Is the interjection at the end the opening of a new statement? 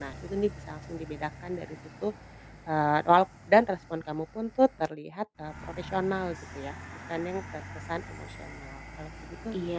Yes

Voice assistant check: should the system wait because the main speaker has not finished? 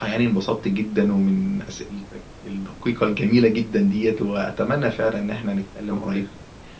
Yes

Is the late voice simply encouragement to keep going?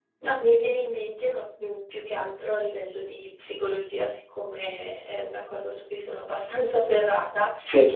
Yes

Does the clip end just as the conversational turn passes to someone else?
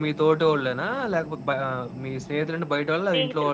Yes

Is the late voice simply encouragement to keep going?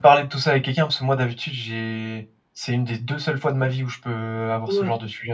No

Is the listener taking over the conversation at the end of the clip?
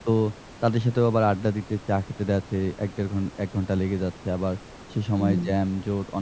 No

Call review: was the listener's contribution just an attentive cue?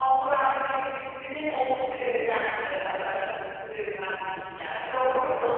No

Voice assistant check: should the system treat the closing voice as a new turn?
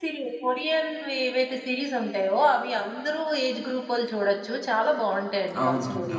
Yes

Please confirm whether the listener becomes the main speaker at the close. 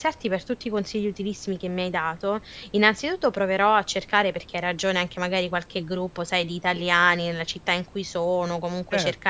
No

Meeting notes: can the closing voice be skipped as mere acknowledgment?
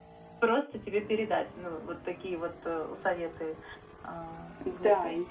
No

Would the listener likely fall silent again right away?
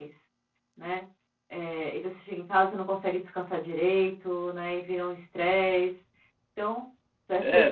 No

